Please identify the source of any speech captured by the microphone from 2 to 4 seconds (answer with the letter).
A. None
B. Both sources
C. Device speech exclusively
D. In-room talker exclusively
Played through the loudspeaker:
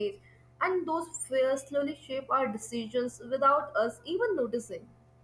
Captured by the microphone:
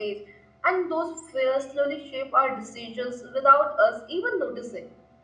C